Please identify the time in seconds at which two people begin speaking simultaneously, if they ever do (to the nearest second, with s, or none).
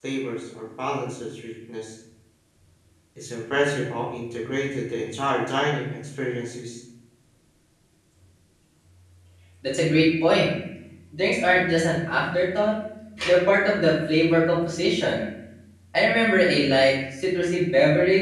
none